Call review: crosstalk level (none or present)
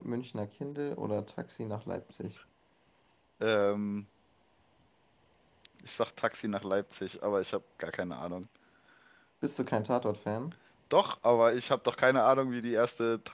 none